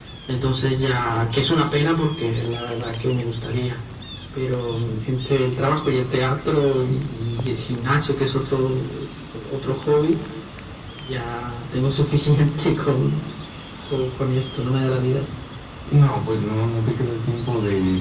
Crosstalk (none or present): none